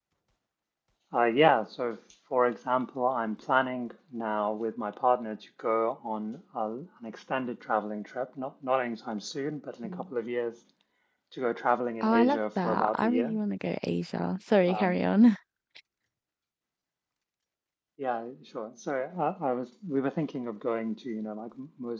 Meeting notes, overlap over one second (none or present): present